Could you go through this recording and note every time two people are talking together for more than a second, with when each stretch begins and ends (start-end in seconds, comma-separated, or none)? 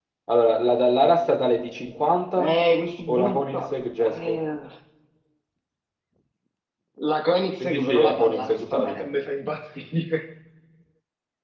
3.1-4.4, 7.6-9.1